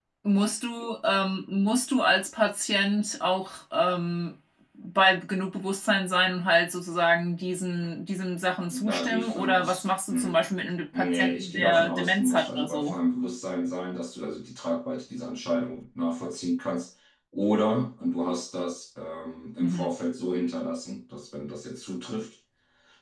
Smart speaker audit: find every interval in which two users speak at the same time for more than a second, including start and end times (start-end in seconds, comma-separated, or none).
8.7-10.4, 10.9-13.0